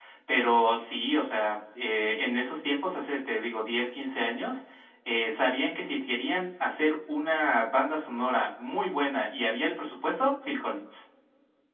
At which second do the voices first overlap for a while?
none

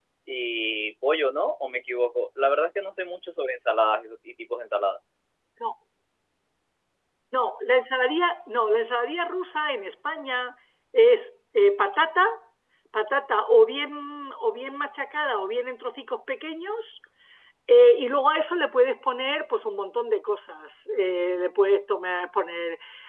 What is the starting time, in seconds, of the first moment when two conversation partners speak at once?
none

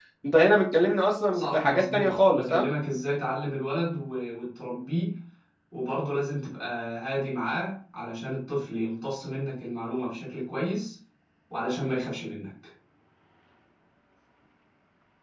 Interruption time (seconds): 1.3 s

